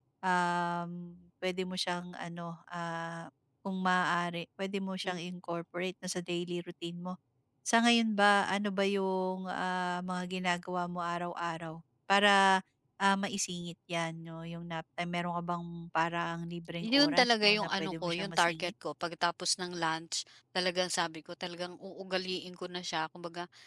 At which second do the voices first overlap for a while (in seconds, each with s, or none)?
16.8 s